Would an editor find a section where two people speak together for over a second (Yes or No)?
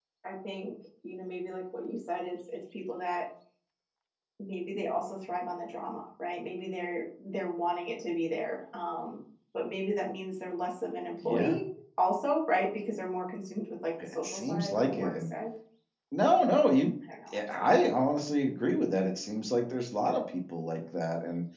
Yes